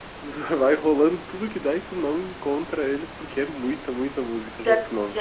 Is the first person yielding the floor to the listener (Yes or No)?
Yes